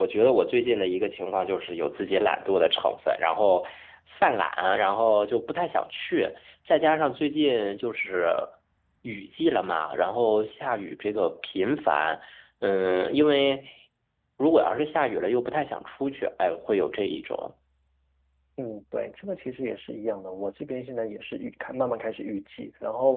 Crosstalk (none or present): none